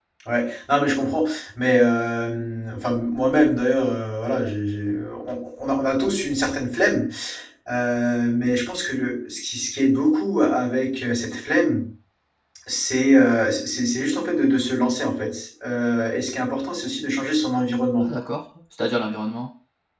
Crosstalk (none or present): none